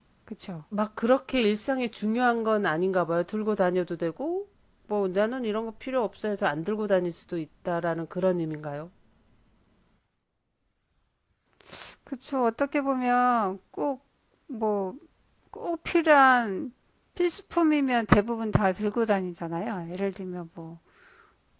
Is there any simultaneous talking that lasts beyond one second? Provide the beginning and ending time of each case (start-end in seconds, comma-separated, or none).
none